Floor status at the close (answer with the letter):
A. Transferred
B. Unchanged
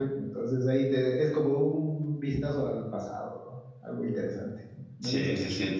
A